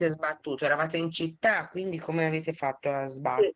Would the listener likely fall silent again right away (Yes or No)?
No